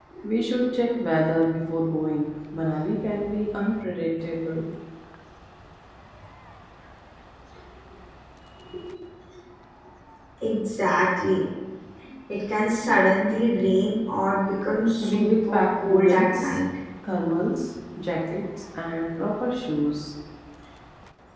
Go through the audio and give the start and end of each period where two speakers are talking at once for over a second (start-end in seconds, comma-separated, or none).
15.0-16.6